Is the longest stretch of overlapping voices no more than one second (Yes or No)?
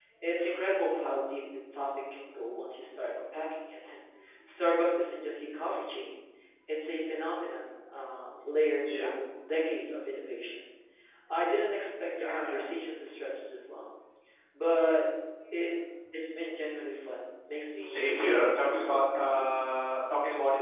No